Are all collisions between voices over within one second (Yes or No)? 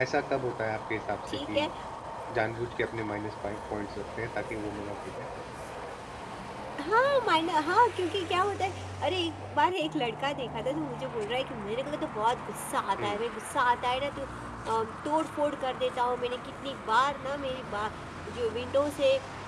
Yes